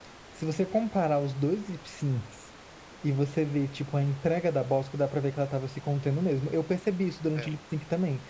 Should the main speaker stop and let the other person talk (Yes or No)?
No